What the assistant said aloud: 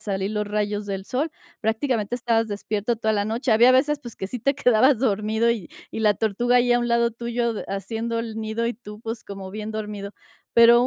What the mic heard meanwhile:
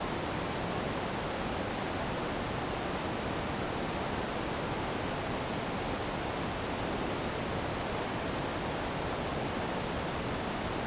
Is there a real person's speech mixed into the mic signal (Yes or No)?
No